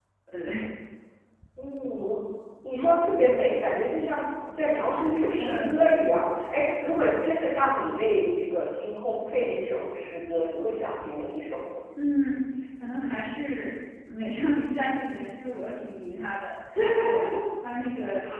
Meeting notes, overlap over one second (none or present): none